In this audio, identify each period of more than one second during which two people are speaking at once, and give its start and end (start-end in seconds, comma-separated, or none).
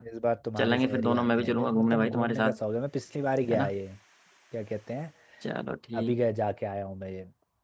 0.6-2.6